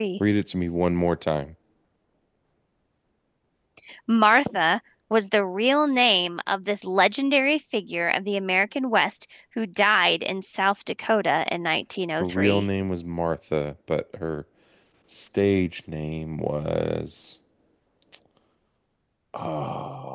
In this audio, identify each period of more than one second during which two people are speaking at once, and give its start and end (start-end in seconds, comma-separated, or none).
none